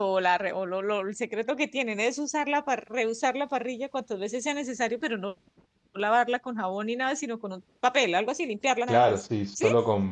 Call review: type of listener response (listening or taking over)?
taking over